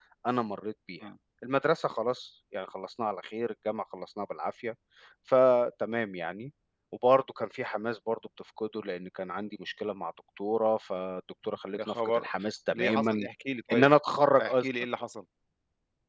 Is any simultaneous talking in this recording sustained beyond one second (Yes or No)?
No